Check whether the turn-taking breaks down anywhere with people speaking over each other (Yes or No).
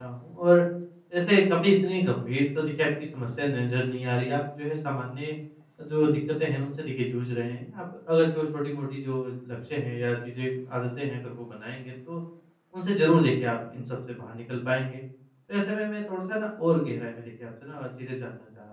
No